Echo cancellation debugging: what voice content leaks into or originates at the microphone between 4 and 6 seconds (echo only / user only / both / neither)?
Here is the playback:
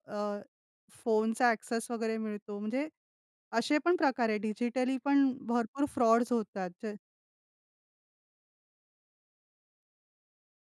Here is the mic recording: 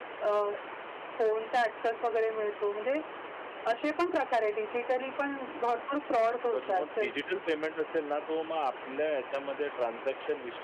echo only